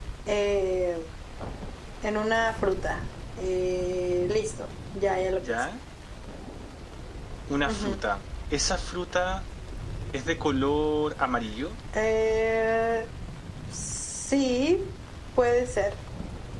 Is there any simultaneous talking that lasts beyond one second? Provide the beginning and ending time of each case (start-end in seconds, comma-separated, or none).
none